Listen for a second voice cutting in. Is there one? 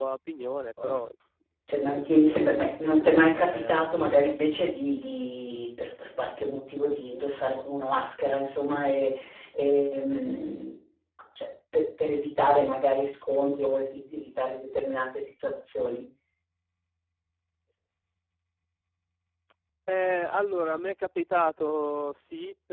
Yes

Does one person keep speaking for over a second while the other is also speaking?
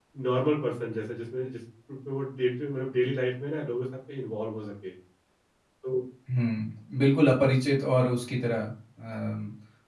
No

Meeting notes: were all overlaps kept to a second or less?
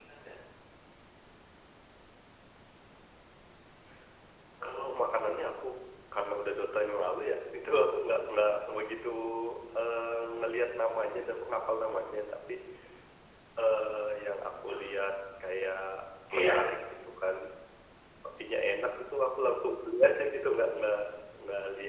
Yes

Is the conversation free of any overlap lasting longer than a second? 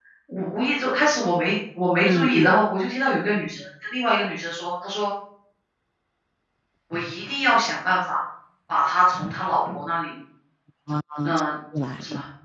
Yes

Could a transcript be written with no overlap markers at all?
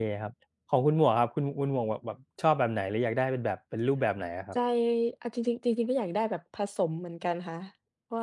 Yes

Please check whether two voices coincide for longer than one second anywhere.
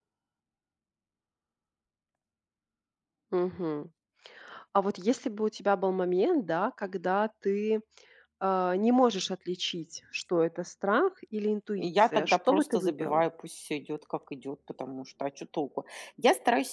Yes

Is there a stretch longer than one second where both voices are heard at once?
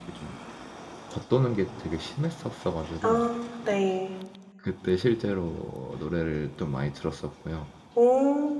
No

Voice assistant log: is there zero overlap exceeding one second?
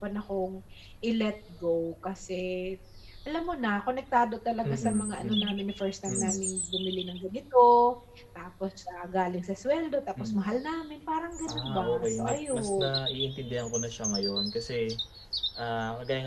No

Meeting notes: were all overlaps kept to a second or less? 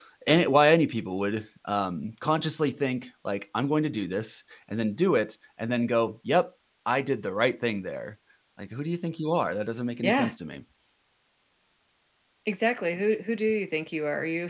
Yes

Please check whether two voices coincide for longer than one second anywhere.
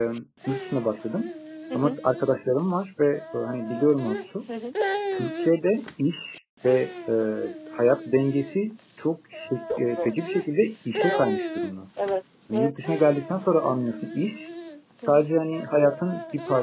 No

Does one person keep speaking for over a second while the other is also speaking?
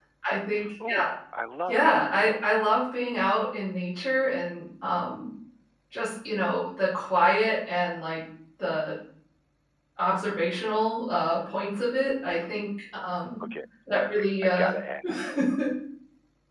No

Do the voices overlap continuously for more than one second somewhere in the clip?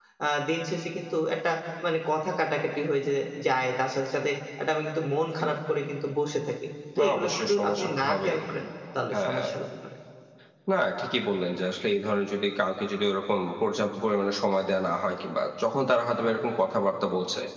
Yes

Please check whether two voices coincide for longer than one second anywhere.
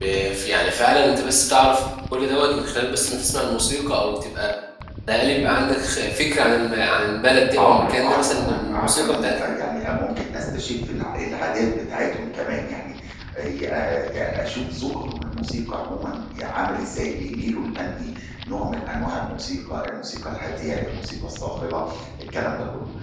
Yes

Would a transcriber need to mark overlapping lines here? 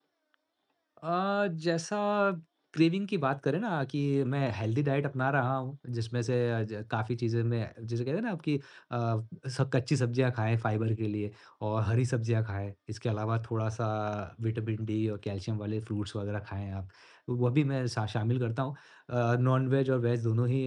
No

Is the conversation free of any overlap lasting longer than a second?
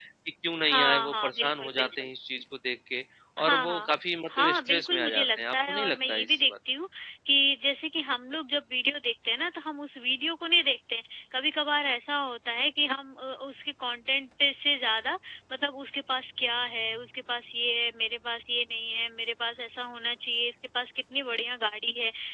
No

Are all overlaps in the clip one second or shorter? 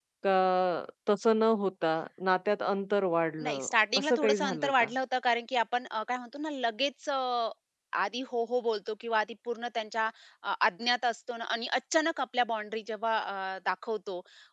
No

